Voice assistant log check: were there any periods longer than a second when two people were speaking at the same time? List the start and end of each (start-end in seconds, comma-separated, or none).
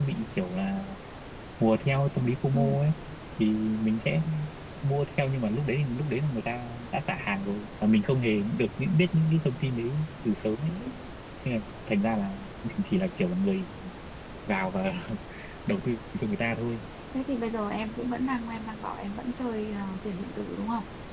none